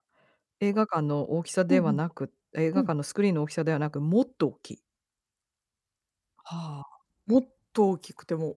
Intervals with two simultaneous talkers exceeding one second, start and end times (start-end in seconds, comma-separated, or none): none